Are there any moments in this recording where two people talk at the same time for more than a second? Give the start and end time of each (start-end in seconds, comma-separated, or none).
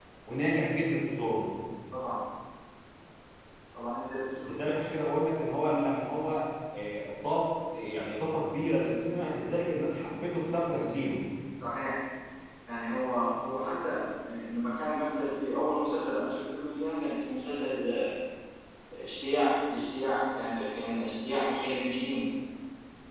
none